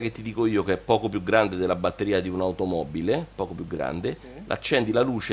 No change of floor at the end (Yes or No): Yes